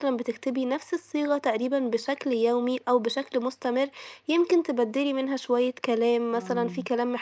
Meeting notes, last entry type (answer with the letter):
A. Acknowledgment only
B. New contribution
A